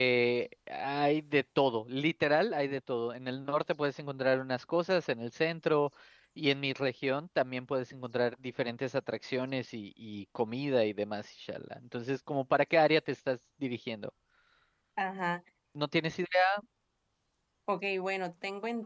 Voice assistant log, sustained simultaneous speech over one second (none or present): none